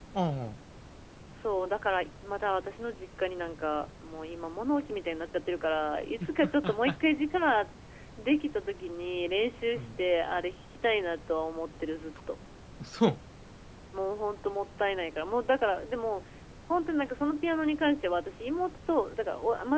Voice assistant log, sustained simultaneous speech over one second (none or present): none